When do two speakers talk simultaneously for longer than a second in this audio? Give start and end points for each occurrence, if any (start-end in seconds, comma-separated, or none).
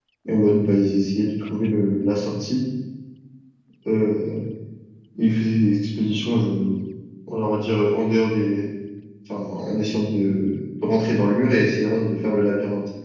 none